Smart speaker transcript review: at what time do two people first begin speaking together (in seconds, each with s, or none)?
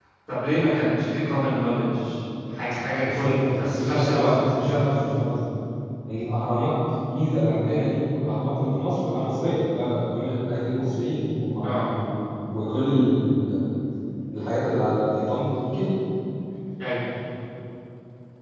3.0 s